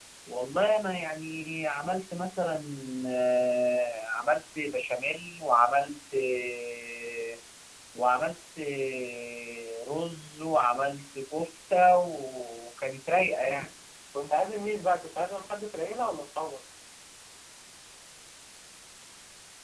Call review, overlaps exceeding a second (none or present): none